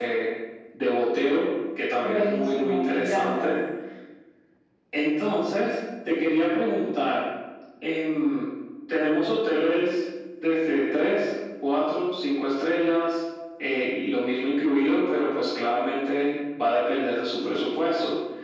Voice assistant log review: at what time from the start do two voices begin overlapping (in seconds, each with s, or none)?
2.0 s